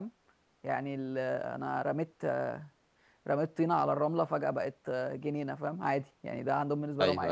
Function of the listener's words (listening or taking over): taking over